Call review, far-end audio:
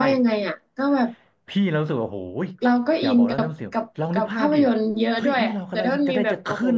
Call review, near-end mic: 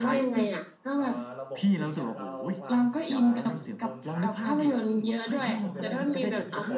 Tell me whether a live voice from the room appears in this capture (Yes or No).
Yes